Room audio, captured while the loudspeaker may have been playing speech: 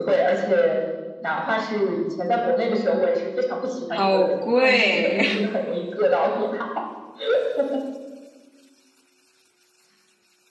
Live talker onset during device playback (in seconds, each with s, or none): 3.9 s